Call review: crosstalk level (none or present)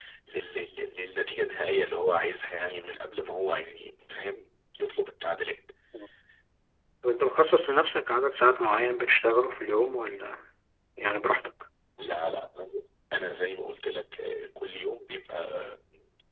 none